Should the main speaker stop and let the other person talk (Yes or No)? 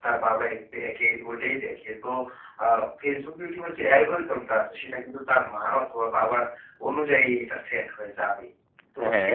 No